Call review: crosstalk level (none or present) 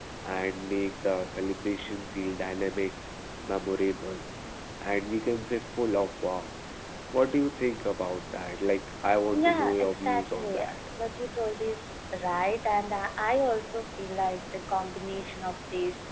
present